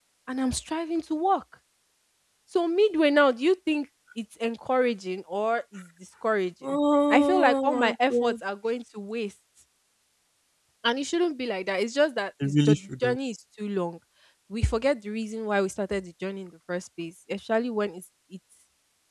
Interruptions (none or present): present